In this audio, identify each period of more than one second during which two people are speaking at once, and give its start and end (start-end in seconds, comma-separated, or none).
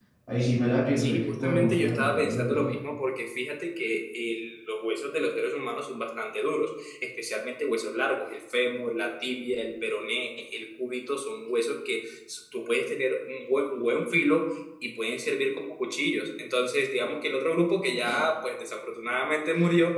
1.0-2.7